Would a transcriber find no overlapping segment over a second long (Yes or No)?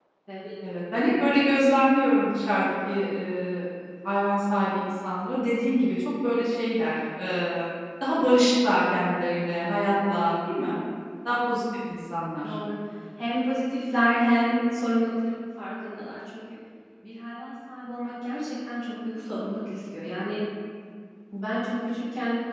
Yes